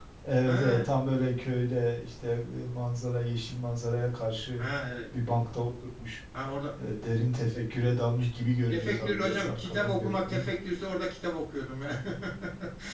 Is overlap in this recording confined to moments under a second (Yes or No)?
No